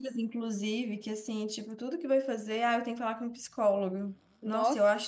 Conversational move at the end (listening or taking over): listening